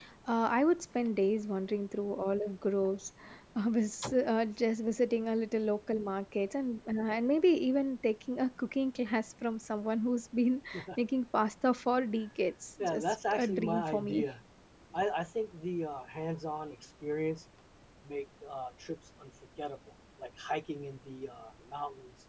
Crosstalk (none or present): present